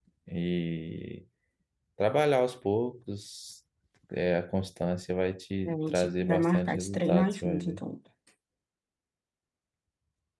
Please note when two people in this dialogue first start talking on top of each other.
6 s

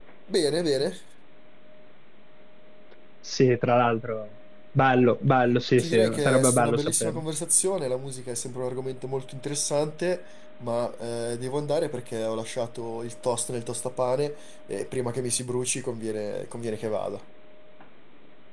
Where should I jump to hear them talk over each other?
6 s

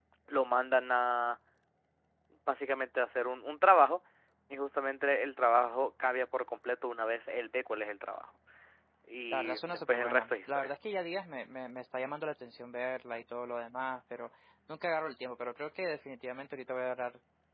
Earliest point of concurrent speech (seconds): 9 s

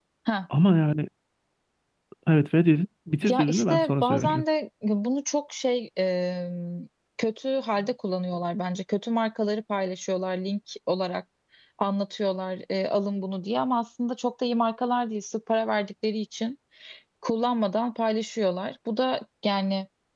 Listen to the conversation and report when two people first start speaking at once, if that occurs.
3 s

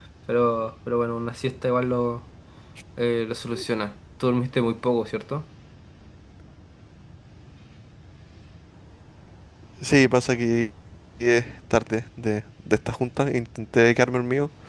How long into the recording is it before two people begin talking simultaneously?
none

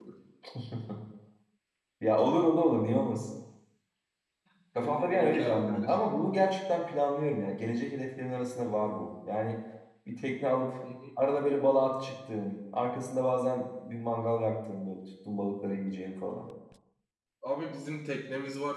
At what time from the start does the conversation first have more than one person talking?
5 s

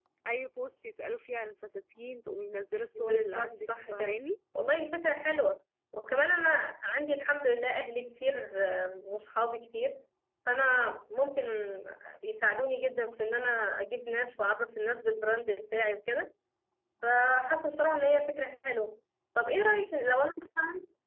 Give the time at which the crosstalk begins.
3 s

